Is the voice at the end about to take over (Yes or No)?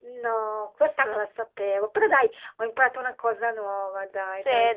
Yes